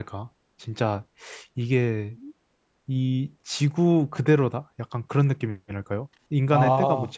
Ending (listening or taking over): listening